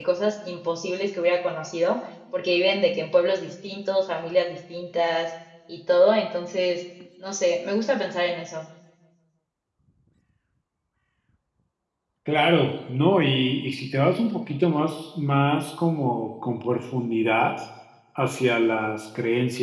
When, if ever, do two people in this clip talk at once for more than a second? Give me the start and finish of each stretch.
none

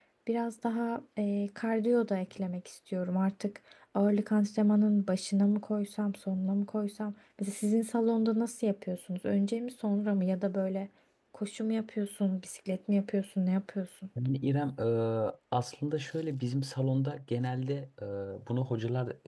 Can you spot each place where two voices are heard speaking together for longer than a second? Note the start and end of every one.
none

